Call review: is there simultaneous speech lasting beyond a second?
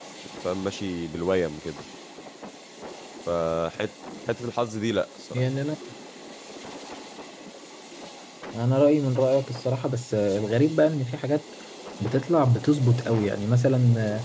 No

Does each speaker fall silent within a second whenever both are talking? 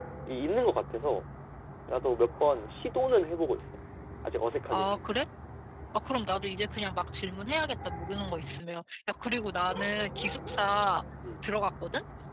Yes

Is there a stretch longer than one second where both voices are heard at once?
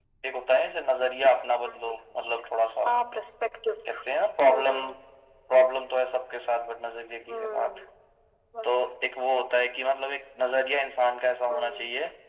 No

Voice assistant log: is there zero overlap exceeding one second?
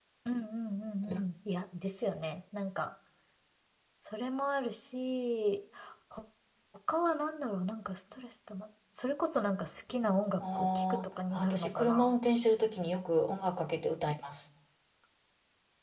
No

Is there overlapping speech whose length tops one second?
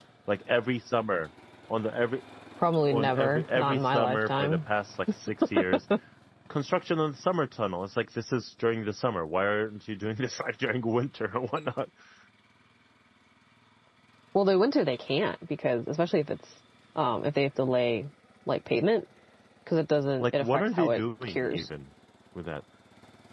Yes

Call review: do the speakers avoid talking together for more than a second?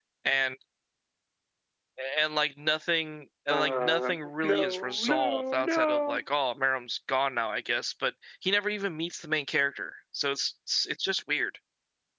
No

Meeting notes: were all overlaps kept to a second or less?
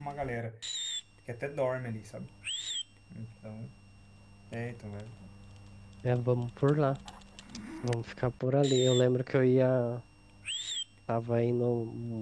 Yes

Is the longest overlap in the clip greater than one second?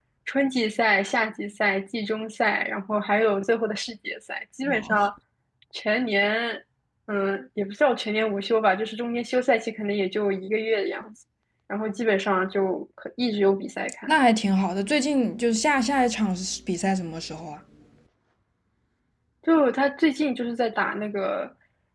No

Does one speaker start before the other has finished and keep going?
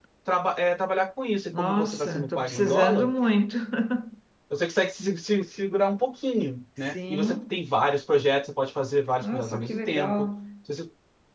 Yes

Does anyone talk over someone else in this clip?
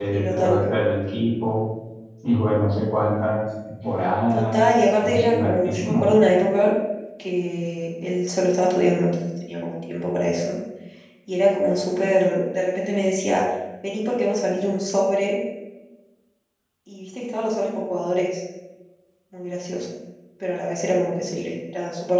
Yes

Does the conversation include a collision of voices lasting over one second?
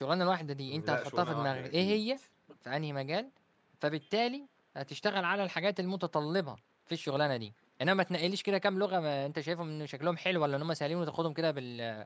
Yes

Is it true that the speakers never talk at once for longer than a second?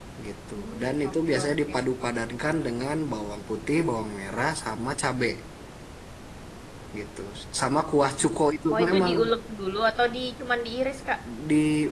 No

